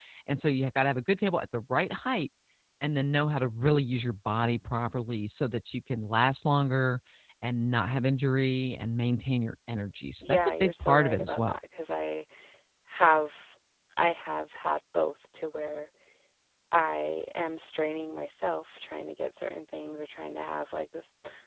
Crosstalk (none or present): present